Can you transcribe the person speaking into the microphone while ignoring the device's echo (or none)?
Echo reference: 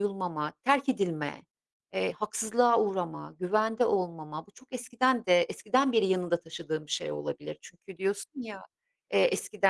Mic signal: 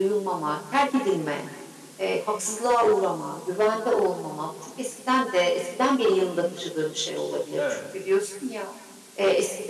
Evet,